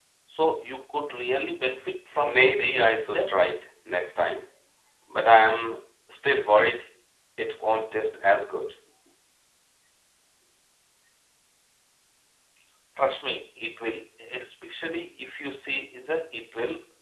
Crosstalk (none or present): present